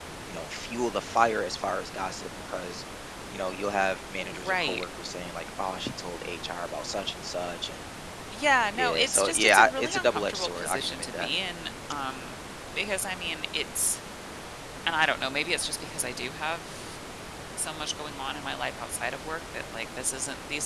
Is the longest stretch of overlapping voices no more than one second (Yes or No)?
No